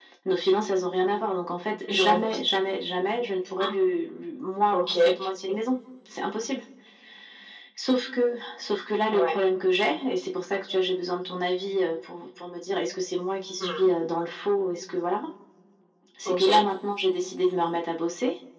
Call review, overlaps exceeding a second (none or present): none